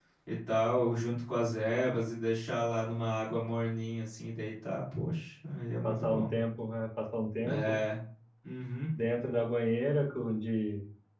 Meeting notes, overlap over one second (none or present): none